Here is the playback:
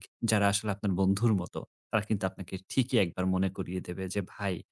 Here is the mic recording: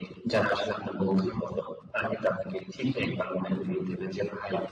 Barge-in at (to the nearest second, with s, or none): none